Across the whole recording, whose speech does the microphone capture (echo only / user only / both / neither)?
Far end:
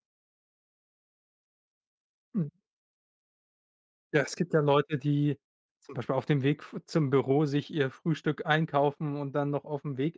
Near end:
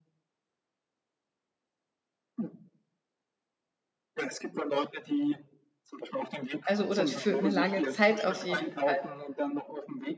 both